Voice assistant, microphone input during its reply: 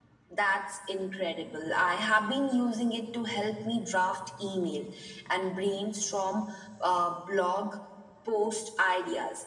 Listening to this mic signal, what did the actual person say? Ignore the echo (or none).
none